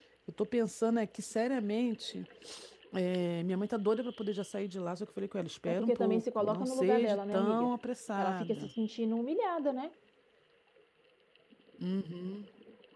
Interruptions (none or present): present